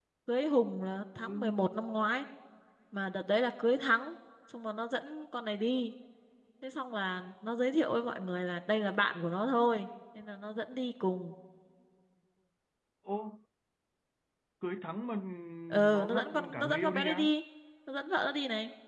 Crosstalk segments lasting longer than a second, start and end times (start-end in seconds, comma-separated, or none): 15.9-17.2